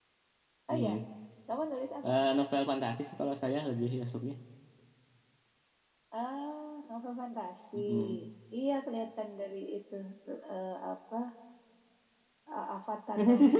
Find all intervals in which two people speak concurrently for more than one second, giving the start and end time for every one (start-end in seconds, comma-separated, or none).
none